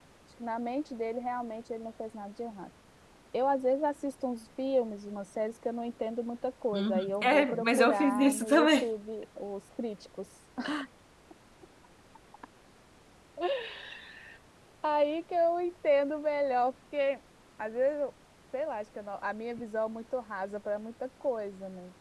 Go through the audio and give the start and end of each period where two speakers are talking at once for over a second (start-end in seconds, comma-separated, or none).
6.7-8.9